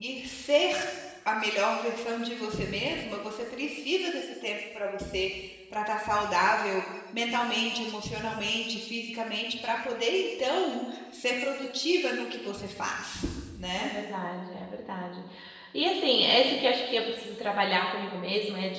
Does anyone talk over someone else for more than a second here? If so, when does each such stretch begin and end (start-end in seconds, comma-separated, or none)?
none